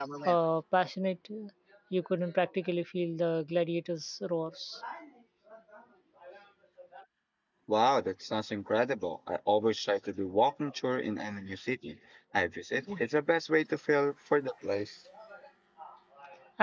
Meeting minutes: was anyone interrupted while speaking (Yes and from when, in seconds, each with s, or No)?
No